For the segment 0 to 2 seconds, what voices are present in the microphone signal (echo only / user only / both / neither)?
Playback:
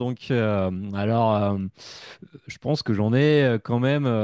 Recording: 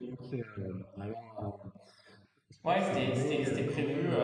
echo only